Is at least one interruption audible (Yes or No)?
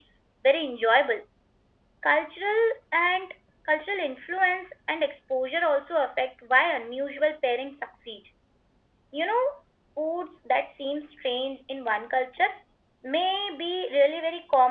No